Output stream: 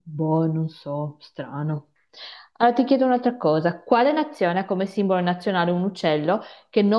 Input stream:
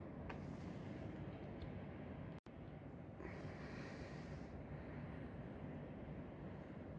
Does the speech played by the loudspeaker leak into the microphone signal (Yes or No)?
No